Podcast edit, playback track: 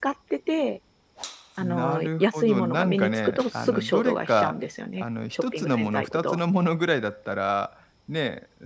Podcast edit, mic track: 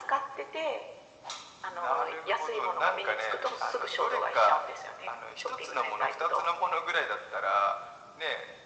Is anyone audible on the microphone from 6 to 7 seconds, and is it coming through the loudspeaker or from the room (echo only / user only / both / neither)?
echo only